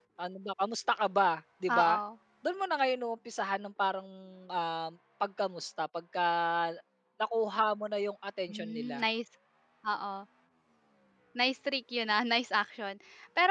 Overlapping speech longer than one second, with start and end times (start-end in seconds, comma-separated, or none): none